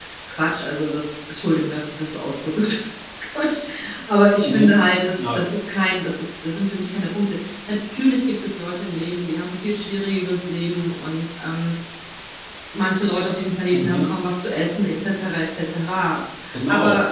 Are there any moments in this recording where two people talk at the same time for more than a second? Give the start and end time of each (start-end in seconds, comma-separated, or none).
none